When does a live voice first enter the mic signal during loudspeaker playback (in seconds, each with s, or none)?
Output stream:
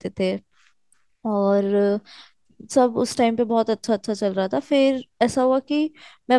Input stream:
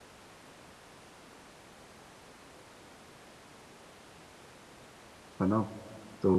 5.4 s